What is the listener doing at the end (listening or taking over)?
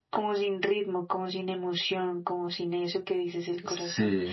listening